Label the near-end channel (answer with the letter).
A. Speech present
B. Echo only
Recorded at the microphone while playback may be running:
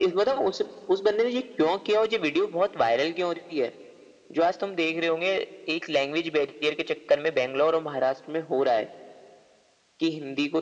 B